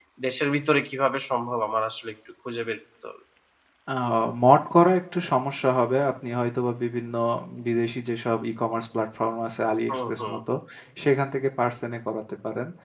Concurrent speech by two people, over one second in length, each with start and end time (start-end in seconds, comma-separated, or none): none